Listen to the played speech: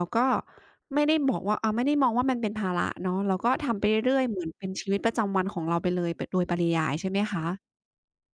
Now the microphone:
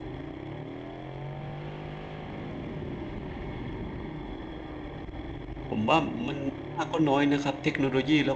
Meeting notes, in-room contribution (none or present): present